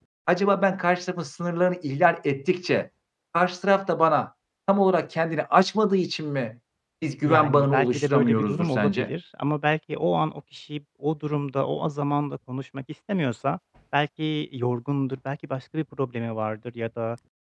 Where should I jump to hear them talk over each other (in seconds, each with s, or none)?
7.2 s